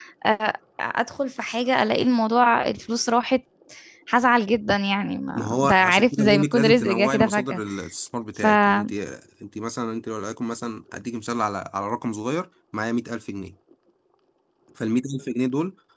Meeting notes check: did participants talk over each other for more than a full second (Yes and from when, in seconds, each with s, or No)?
Yes, from 5.3 s